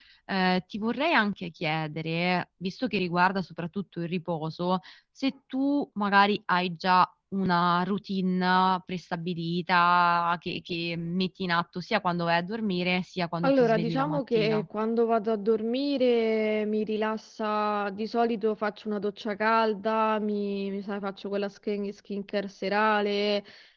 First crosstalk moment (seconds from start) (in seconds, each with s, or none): 13.4 s